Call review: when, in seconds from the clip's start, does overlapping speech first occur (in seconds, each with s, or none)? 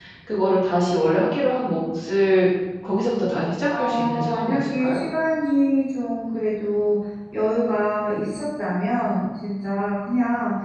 3.7 s